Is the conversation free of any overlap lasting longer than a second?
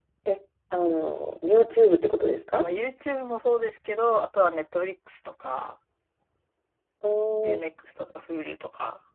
Yes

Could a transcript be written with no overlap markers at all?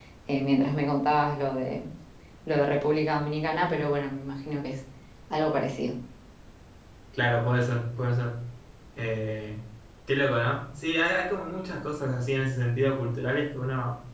Yes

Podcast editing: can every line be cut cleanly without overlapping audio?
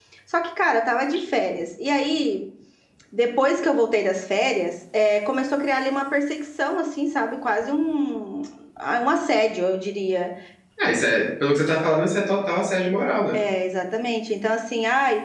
Yes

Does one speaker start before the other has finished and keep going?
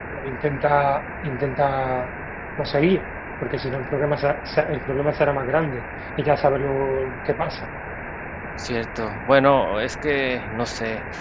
No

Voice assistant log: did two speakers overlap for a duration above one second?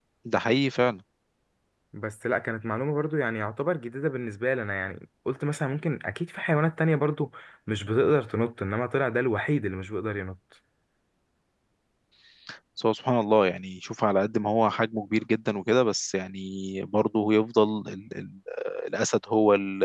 No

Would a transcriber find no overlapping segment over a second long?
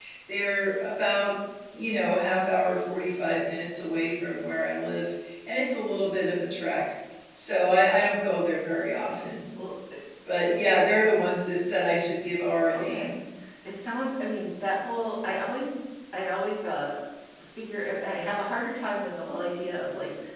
Yes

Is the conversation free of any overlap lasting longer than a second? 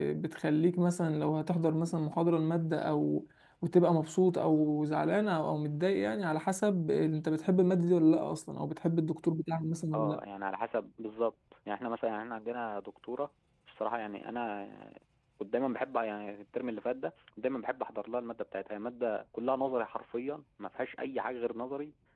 Yes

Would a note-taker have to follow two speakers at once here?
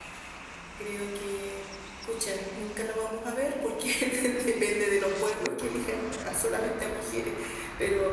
No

